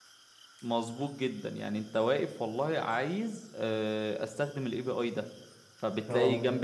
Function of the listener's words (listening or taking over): listening